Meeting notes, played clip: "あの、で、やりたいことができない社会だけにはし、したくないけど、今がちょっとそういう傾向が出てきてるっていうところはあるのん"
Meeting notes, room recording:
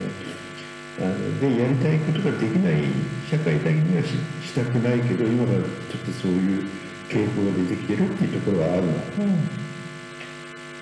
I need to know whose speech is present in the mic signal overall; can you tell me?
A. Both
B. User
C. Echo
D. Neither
C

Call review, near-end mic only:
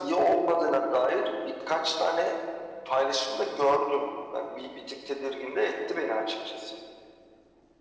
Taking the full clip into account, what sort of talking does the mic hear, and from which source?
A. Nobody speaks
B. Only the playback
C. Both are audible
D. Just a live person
B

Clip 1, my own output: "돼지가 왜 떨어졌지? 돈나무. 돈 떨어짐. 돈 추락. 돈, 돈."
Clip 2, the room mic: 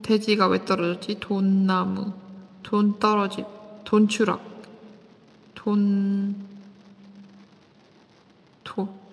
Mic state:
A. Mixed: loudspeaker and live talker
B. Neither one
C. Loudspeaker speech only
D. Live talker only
C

